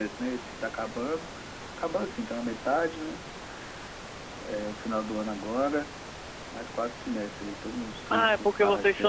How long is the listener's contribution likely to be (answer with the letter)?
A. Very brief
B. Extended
B